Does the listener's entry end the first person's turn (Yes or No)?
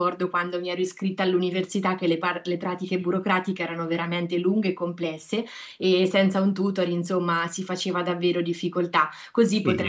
Yes